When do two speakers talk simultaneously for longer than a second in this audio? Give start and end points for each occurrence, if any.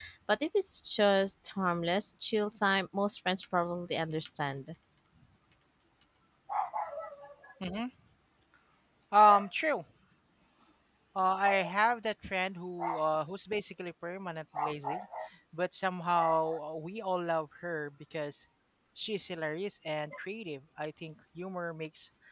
none

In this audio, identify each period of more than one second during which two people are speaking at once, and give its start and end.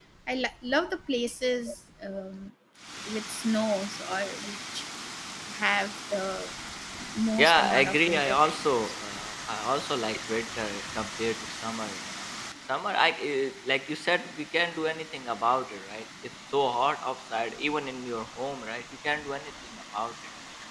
7.4-8.7

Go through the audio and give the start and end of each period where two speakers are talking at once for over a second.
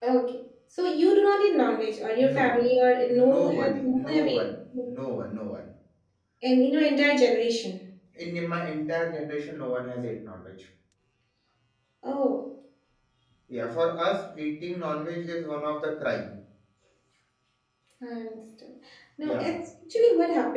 3.1-4.4

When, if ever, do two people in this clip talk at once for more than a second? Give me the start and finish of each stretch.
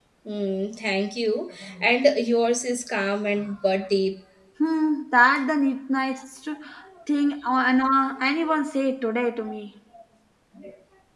none

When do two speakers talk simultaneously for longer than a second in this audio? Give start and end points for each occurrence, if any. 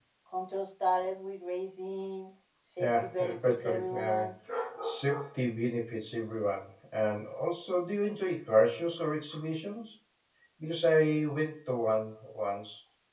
2.8-4.2

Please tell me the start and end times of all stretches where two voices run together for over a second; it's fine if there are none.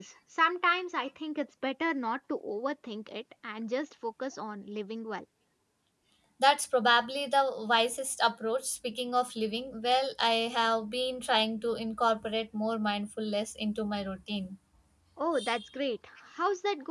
none

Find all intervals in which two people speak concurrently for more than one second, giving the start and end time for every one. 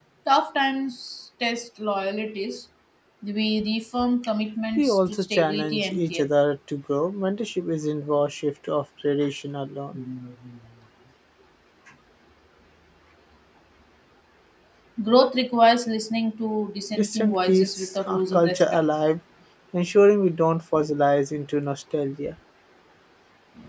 4.7-6.3, 16.9-18.8

